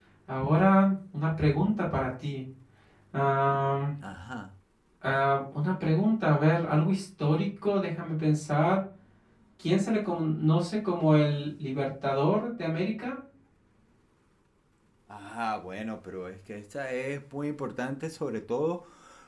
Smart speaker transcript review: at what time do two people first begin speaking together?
none

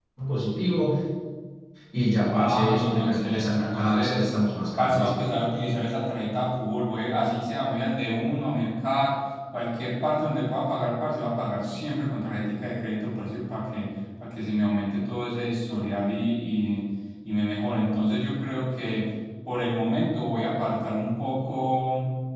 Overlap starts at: 2.3 s

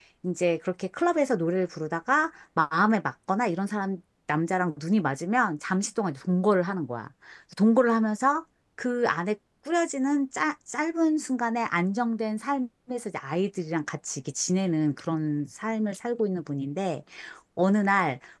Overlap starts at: none

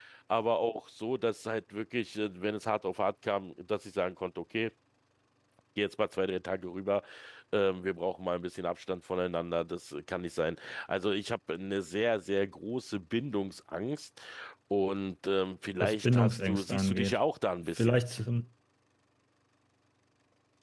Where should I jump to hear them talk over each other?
15.8 s

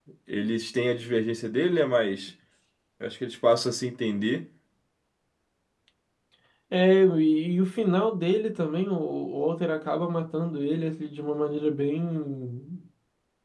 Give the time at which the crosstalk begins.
none

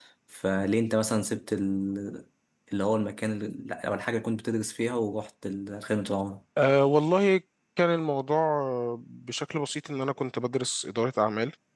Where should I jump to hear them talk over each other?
none

